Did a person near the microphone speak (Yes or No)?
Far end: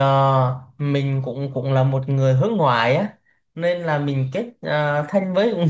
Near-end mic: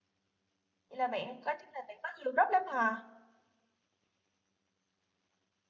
Yes